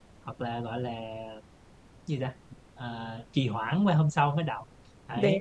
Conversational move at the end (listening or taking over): listening